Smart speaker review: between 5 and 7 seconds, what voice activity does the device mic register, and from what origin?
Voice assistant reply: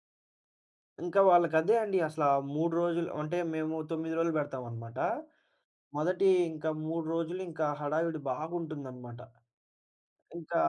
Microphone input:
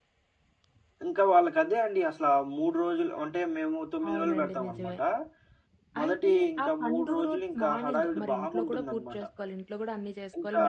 both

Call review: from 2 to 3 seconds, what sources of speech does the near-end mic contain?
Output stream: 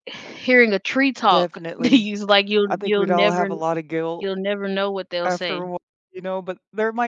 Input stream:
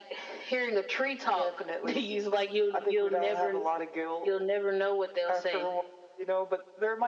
echo only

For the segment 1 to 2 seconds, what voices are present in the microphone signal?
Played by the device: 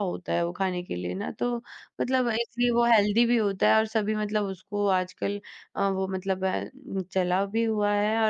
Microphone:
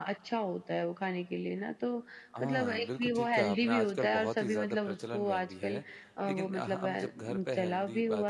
echo only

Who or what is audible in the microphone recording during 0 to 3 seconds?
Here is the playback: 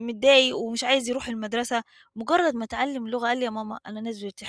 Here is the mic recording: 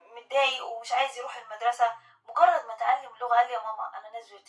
echo only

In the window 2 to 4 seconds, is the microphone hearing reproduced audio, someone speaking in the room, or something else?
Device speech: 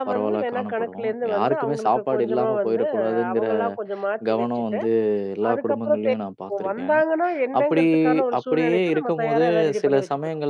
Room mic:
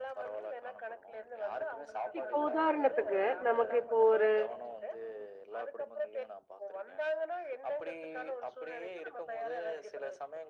both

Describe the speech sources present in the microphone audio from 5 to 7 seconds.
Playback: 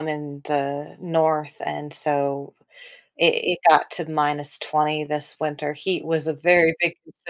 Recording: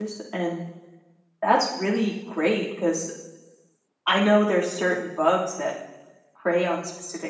user only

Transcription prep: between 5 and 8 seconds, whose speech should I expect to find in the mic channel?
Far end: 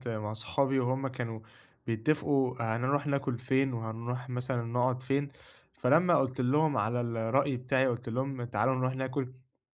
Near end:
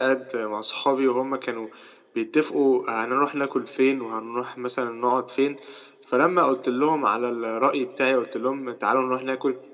echo only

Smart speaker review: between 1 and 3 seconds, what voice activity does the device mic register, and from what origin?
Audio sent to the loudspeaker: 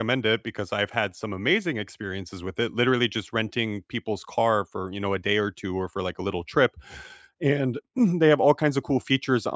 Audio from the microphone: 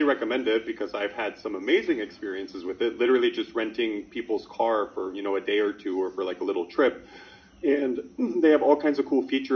echo only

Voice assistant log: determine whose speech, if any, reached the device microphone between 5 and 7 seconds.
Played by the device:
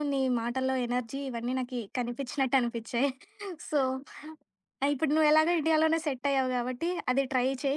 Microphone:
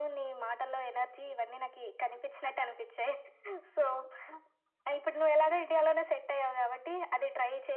echo only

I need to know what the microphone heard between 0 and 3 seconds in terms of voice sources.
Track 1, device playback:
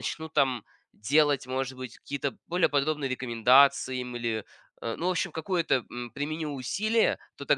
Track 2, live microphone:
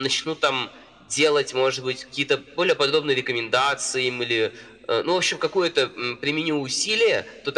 echo only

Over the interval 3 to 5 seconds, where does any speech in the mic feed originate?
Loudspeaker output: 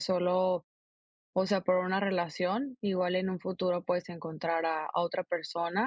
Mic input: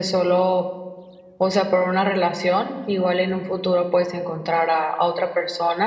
echo only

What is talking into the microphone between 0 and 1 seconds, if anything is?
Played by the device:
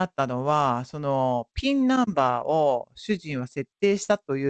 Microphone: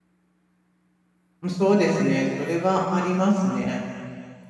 neither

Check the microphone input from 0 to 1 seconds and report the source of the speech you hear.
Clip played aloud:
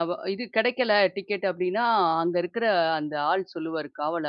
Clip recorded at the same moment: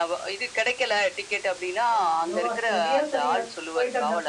echo only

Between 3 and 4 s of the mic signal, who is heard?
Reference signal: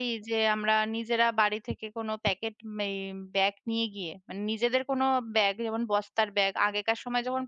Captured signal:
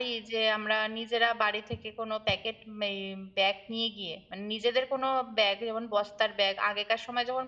echo only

